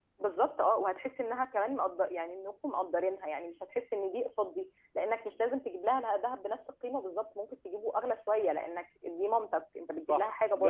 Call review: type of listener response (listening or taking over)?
taking over